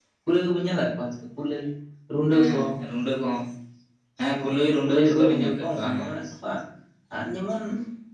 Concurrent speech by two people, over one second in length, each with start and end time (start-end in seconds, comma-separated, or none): 4.8-6.1